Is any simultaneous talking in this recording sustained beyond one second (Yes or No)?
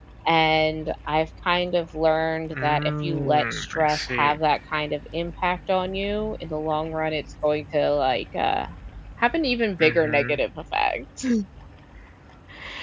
Yes